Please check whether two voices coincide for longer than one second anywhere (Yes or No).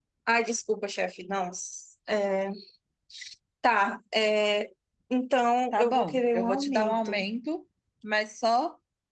Yes